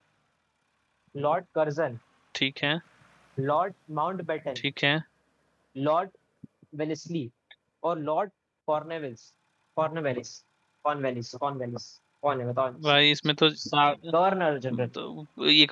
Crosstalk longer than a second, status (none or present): none